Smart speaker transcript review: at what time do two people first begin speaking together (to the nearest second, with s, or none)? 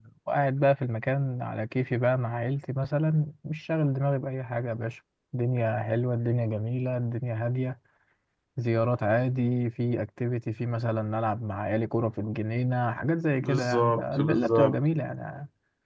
13 s